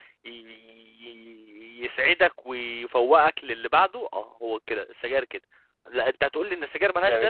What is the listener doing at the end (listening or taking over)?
listening